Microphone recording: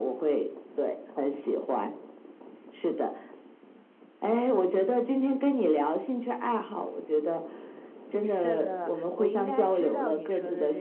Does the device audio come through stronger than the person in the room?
Yes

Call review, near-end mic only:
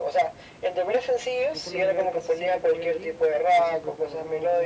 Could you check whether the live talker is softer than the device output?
Yes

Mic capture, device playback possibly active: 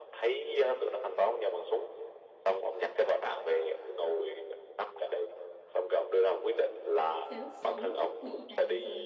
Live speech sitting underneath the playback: Yes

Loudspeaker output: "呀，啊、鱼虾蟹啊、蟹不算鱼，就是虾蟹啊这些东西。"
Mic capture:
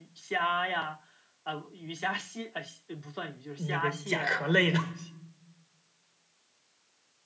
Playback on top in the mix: No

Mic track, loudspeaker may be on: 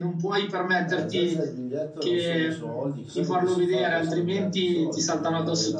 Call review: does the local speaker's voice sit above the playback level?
No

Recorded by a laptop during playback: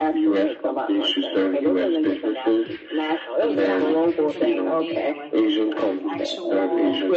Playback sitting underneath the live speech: No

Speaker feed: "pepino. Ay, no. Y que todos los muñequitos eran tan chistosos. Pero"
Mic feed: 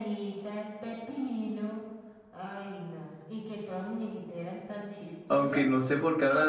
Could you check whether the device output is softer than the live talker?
Yes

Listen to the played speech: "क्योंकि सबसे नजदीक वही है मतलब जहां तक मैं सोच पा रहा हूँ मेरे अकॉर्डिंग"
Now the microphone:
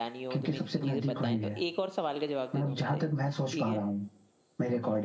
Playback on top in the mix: Yes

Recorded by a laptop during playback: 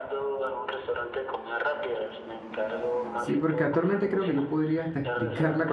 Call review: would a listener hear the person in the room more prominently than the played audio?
Yes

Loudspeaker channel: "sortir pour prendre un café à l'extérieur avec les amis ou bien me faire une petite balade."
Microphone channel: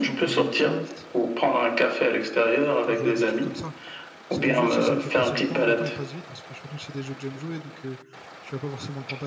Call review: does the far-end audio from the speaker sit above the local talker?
Yes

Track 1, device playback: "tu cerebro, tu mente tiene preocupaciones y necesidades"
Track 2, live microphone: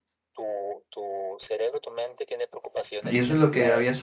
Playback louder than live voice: No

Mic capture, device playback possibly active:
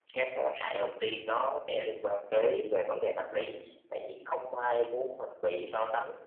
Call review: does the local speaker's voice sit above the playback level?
No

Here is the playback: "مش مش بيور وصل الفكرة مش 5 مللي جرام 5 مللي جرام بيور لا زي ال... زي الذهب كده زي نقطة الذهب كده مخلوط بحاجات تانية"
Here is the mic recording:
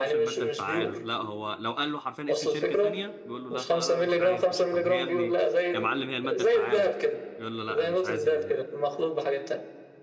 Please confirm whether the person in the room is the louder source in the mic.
No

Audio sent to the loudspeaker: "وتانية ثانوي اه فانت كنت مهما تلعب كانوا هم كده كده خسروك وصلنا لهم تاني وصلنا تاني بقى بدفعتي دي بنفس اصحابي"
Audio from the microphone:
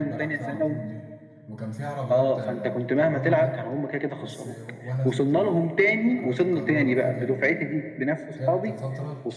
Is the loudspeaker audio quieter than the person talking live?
No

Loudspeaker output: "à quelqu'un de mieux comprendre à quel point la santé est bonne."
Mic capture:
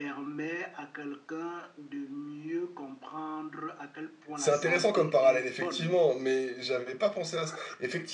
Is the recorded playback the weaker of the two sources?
Yes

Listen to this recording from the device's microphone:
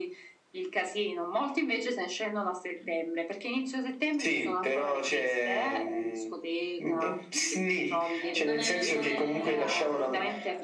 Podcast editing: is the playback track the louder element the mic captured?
Yes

